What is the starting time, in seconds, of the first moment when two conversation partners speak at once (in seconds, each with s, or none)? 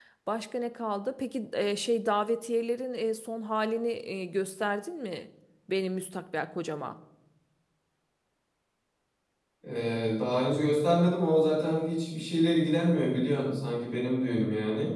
none